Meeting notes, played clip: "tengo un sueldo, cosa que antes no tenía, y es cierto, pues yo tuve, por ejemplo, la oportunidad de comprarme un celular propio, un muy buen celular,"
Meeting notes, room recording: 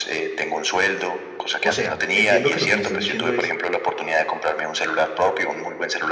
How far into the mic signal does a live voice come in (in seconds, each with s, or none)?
1.6 s